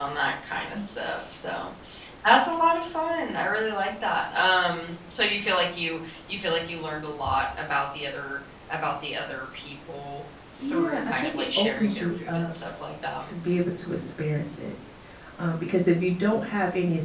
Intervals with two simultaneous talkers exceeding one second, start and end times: 10.6-12.5

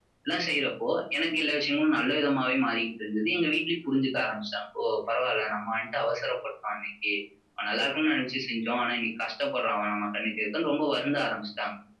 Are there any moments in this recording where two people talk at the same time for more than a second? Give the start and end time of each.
none

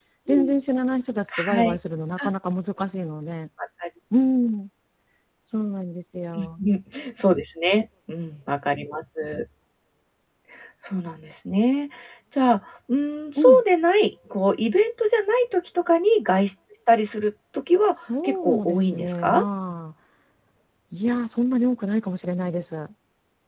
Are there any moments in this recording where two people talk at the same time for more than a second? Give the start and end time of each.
18.0-19.4

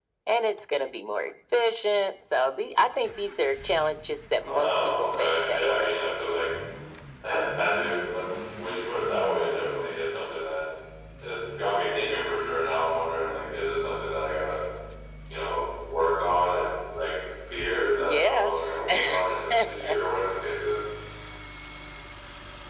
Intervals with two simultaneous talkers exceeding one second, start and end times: 4.4-5.9

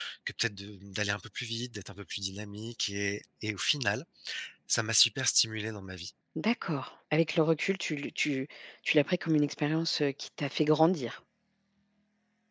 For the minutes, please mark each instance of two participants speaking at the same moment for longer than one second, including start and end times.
none

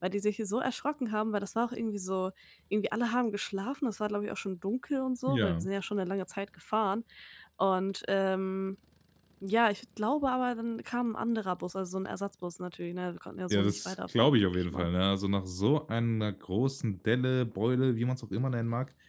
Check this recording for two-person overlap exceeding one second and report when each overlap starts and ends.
13.5-14.9

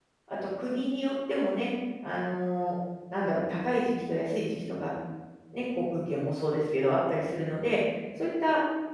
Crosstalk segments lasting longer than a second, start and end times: none

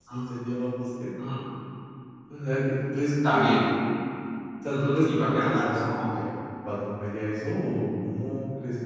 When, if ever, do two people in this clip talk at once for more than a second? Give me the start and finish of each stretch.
4.7-6.2

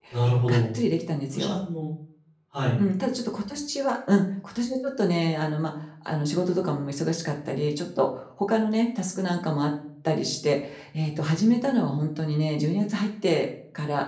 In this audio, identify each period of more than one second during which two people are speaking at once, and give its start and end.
none

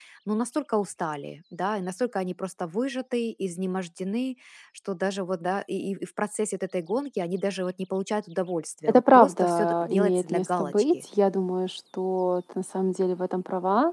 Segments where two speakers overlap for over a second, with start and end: 8.9-11.0

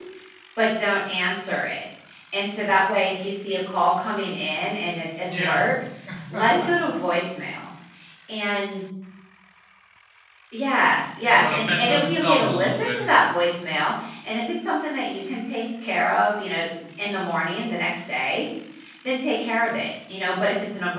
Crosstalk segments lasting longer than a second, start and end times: 11.2-13.0

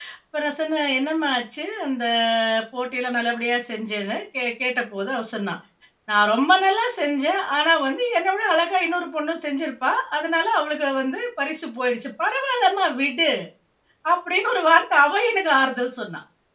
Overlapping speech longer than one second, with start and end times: none

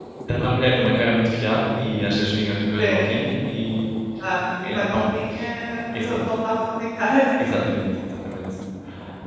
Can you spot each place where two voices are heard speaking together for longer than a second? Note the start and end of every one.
none

